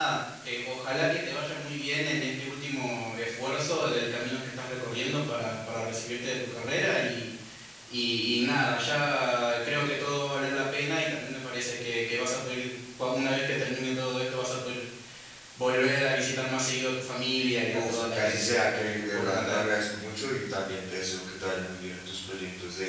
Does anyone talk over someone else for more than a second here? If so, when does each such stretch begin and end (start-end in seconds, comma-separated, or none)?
17.7-19.7